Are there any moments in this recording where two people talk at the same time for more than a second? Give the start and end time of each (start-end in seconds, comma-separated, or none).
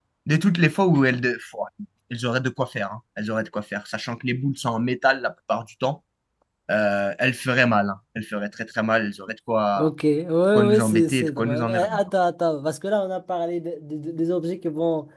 10.7-12.0